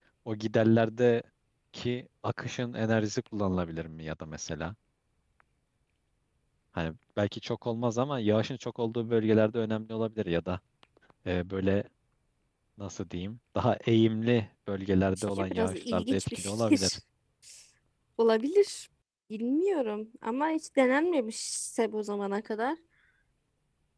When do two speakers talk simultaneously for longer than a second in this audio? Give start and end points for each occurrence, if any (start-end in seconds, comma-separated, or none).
15.2-17.0